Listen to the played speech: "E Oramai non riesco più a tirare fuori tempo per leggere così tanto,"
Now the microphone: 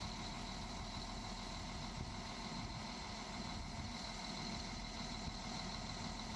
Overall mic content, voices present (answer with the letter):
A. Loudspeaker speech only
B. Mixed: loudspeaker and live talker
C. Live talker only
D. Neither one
D